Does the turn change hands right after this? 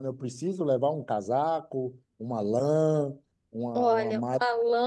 Yes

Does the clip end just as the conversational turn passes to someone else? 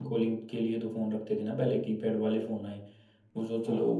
No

